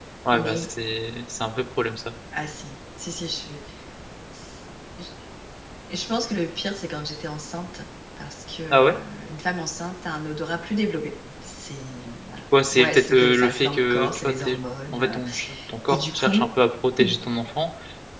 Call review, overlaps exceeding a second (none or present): present